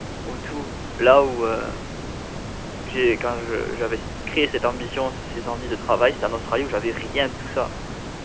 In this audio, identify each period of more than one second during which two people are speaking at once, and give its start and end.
none

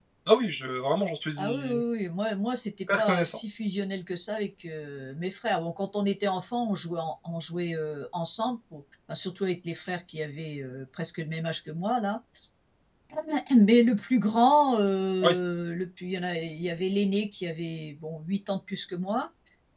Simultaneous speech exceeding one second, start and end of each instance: none

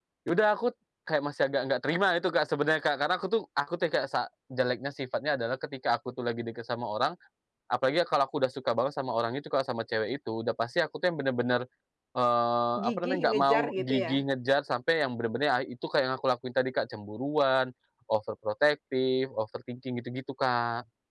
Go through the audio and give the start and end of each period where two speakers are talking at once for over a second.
12.8-14.2

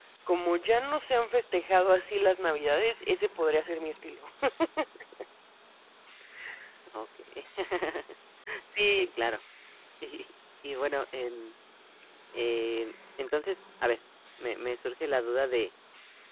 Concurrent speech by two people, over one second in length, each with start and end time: none

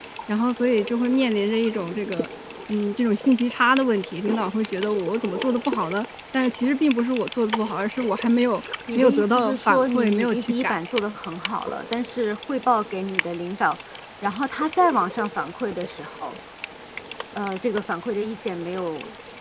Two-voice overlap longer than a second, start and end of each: 8.9-10.7

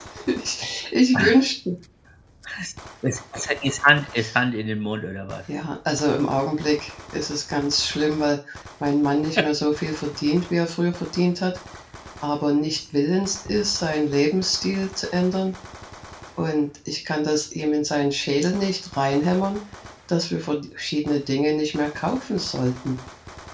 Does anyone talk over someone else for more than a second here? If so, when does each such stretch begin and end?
none

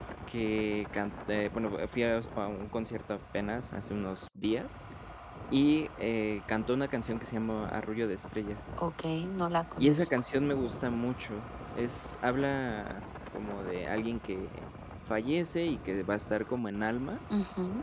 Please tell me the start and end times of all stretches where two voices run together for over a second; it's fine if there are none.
none

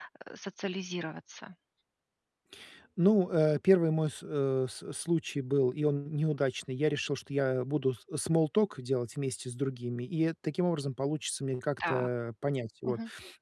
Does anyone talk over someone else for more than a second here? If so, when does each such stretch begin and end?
none

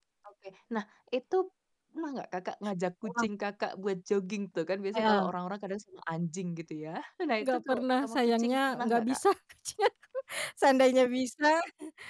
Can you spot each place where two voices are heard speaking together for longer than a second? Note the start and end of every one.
7.4-9.2

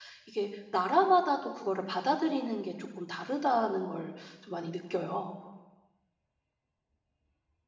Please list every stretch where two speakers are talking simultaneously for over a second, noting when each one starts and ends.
none

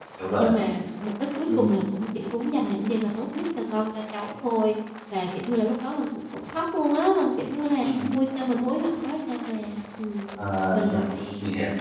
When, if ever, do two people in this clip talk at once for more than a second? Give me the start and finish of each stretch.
none

